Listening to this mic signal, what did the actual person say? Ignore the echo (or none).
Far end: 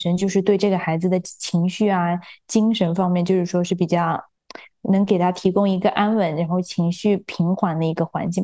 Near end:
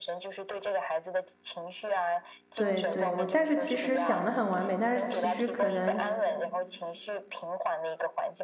对对，我但是其实想的很完美，但是其实可能